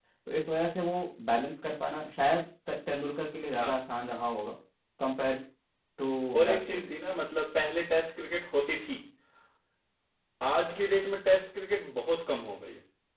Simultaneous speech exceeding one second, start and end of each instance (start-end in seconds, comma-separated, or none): none